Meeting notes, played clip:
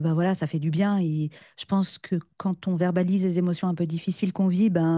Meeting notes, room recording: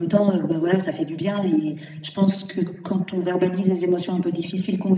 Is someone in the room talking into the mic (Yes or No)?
No